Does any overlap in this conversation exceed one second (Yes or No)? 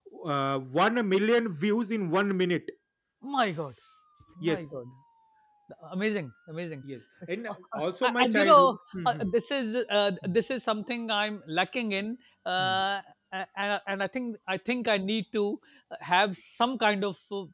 Yes